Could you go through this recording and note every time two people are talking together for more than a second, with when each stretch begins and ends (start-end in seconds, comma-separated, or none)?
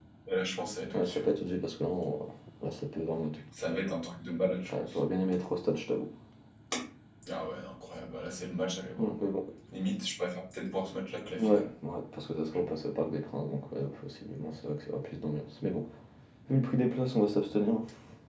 none